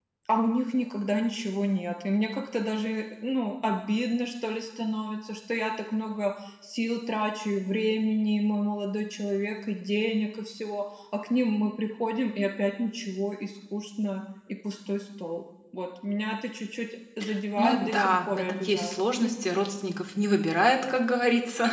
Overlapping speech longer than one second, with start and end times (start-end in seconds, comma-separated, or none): 17.6-19.0